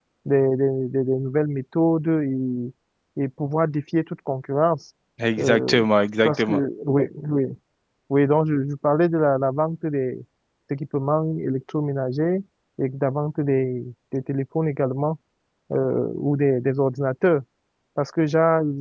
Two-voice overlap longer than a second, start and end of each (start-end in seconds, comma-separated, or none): none